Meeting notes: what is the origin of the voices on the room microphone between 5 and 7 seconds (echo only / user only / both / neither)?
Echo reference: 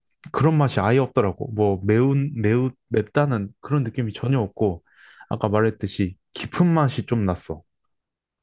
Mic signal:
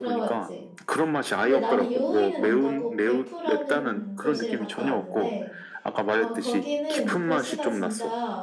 both